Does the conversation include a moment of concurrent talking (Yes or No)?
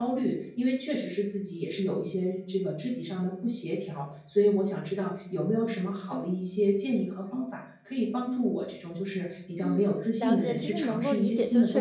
Yes